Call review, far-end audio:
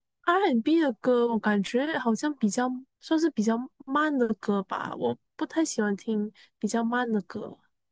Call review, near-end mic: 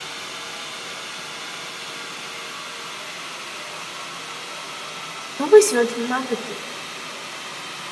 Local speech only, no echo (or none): 你会不会喜欢听慢的歌？